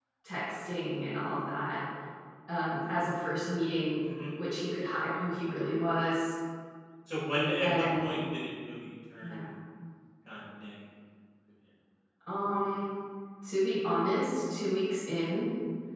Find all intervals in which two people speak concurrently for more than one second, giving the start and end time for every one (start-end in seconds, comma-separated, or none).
none